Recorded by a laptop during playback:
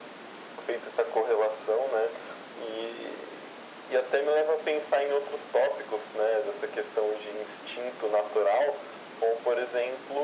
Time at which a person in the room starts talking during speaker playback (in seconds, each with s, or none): none